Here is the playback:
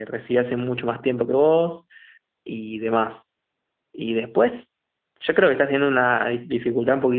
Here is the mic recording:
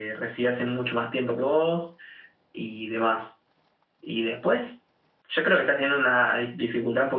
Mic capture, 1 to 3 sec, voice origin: echo only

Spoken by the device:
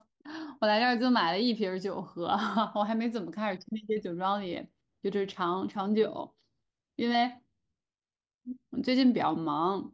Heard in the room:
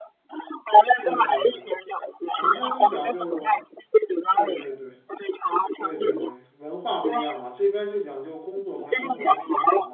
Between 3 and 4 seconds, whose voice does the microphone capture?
both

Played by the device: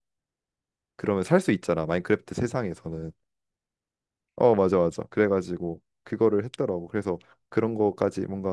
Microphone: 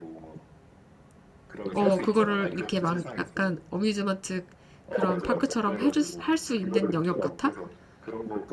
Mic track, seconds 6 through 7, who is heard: both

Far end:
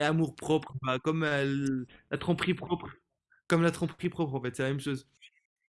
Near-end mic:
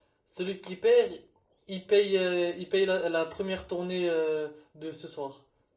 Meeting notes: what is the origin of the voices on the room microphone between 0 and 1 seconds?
user only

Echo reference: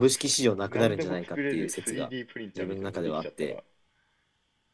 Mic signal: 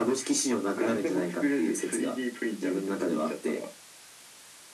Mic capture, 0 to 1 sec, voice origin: echo only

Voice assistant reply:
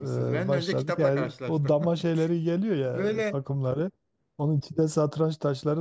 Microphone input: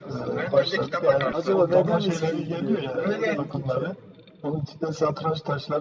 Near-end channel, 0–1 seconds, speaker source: echo only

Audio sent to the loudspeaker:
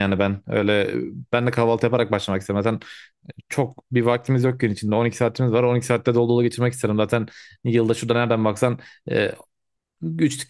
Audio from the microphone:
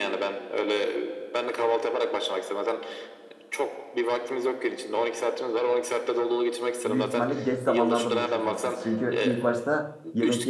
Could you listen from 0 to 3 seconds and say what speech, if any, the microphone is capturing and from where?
echo only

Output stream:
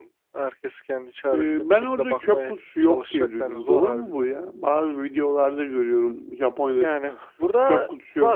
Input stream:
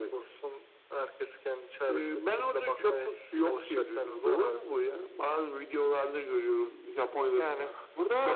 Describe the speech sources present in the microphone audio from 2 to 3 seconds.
echo only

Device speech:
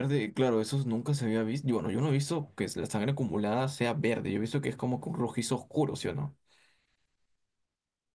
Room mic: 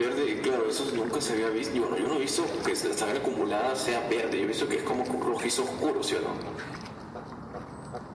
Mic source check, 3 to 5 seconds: echo only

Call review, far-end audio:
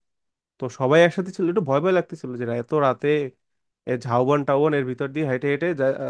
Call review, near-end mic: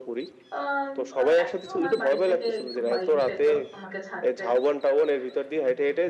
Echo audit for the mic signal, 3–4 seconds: both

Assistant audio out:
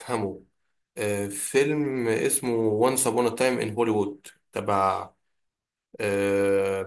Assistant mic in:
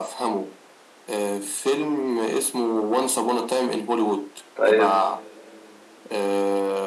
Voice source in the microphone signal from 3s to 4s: echo only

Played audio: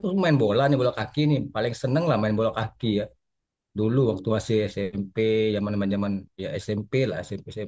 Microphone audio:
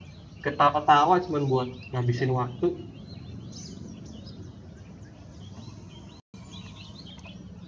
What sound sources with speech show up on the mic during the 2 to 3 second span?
user only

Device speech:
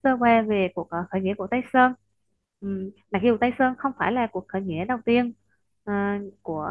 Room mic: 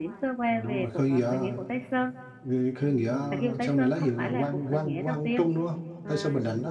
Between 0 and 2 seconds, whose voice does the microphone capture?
both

